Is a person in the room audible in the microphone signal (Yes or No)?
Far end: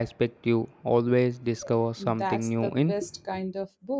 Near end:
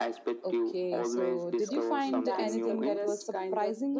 Yes